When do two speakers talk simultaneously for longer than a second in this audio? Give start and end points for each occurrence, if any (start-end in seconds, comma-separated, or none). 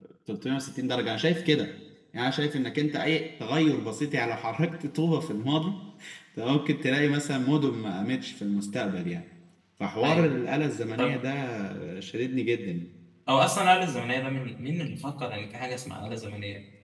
none